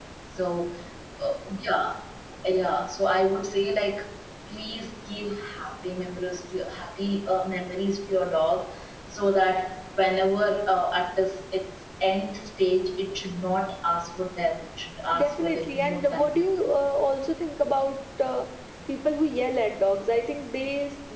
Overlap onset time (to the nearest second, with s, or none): 15 s